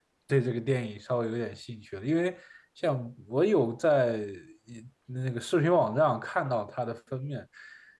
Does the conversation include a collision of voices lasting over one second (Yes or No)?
No